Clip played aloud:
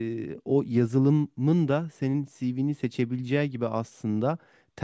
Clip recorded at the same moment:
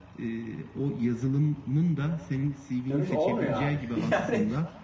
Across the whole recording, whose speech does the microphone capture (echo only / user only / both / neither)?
both